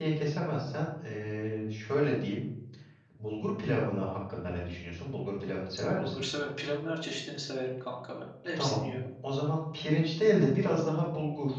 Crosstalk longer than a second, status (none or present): none